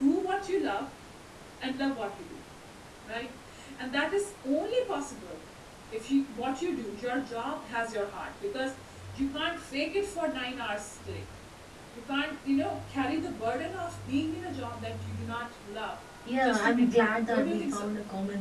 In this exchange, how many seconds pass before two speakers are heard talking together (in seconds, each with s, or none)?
16.4 s